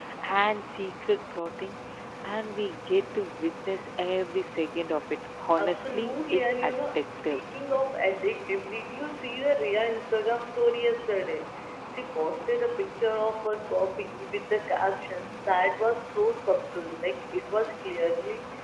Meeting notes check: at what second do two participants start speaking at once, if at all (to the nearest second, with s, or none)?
6 s